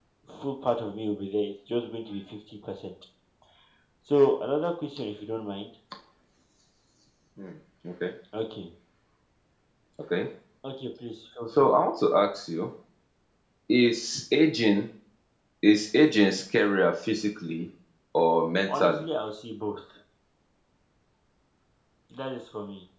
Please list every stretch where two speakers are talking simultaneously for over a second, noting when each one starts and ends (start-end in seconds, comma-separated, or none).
none